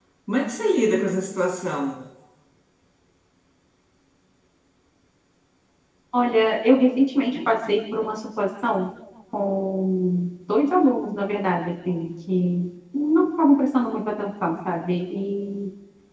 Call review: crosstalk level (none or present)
none